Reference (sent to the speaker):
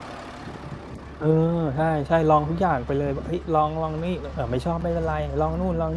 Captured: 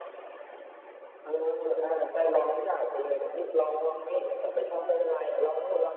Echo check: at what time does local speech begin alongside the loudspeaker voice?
none

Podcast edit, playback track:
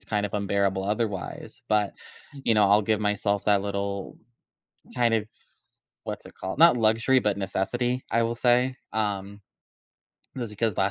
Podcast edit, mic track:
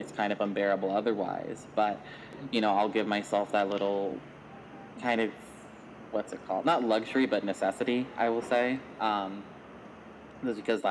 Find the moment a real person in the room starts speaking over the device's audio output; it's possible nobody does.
none

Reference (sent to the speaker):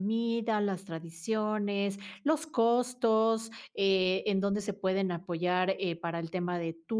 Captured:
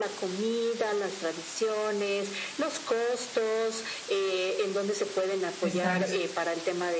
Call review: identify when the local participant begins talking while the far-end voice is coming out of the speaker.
6 s

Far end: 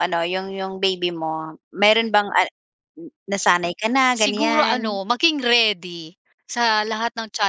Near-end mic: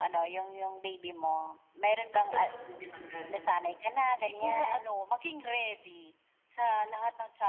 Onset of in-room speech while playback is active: 2 s

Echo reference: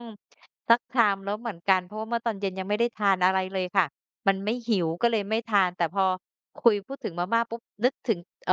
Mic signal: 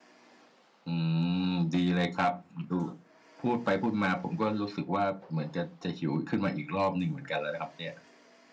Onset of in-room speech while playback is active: 1 s

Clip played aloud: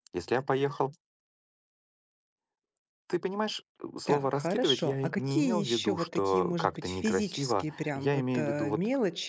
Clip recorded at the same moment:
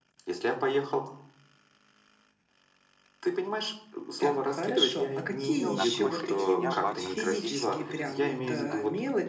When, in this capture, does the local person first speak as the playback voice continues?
6 s

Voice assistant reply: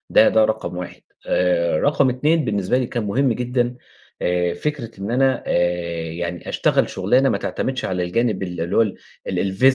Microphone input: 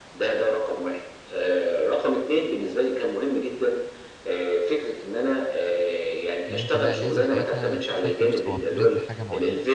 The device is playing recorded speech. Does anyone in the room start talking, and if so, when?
6 s

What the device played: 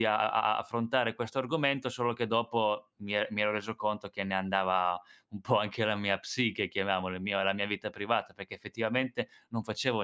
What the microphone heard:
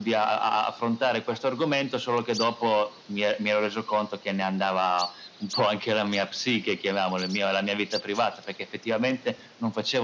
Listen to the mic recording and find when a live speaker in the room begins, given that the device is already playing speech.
none

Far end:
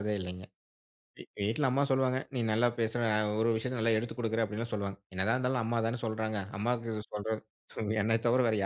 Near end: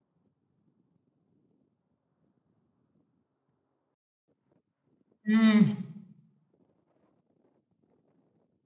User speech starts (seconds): 5 s

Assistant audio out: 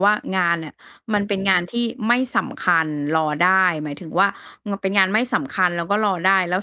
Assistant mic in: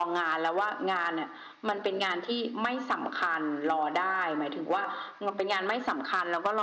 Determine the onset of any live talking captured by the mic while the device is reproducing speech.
none

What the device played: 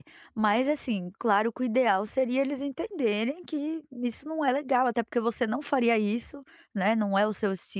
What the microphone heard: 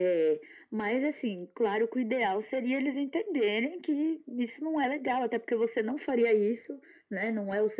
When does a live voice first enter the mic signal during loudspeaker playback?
none

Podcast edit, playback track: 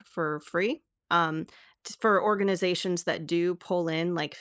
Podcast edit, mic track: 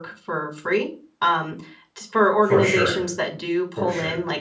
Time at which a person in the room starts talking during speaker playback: 2 s

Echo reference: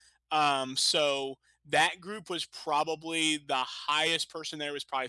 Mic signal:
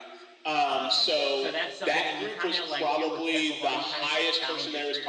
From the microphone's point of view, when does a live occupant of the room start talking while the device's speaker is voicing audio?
1 s

